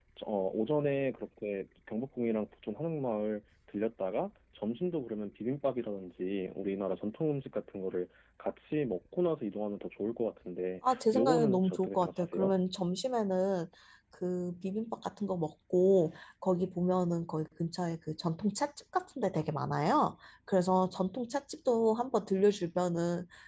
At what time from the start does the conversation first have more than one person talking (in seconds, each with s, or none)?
10.8 s